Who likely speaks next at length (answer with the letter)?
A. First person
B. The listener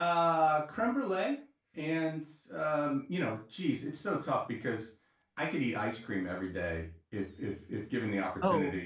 A